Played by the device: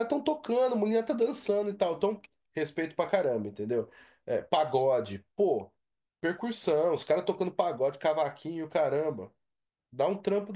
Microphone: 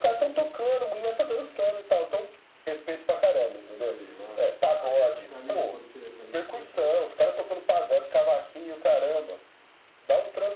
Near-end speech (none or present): present